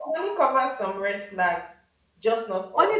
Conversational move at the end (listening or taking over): taking over